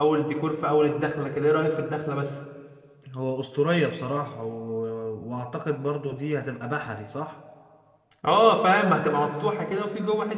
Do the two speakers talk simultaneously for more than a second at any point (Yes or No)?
No